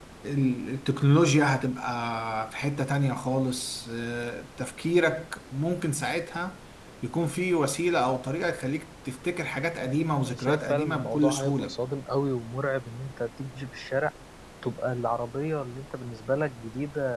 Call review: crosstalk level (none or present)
present